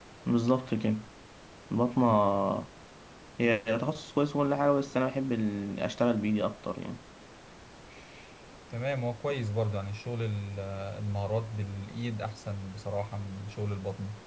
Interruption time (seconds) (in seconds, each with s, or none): none